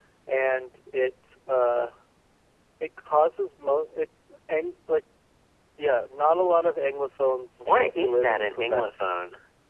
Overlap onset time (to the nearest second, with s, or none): 8 s